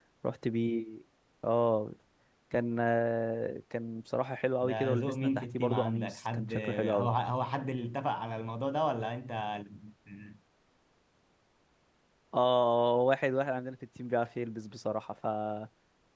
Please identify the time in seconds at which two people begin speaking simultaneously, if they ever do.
4.6 s

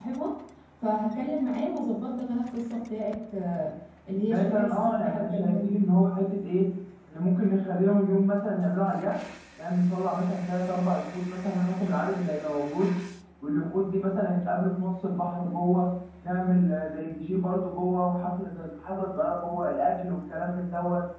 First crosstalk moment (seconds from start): 4.3 s

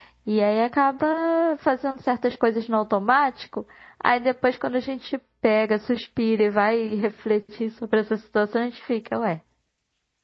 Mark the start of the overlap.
none

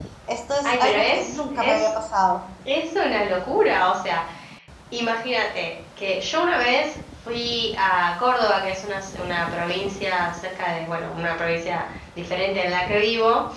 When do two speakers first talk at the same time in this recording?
0.6 s

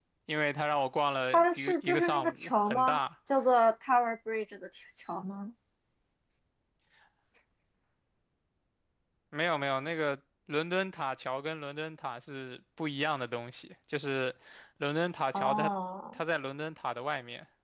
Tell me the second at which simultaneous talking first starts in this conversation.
1.3 s

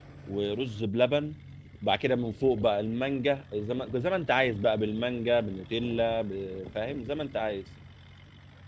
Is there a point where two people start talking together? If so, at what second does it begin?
none

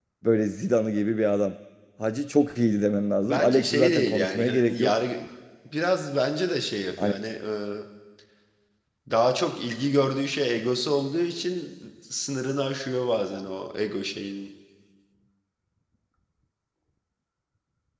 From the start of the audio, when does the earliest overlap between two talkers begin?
3.2 s

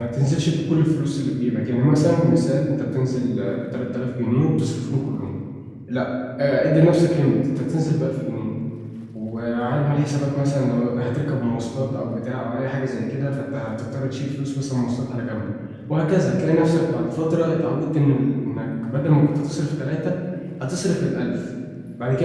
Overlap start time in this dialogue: none

